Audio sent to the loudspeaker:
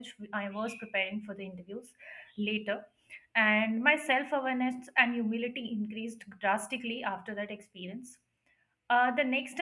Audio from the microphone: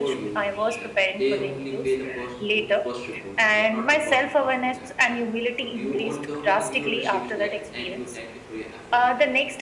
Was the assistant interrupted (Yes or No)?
Yes